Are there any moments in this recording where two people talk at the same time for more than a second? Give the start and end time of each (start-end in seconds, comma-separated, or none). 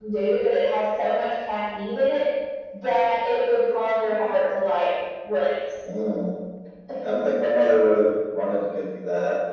none